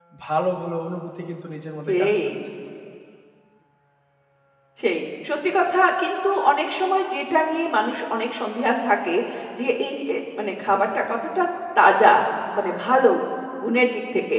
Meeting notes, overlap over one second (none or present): none